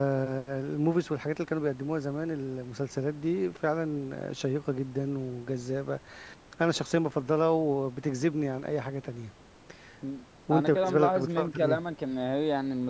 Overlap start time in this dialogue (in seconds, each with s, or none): 10.5 s